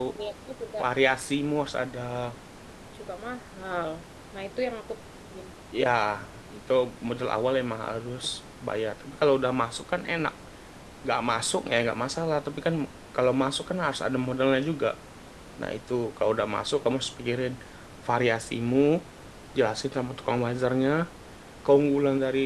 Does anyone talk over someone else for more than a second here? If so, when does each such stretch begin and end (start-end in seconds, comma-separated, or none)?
none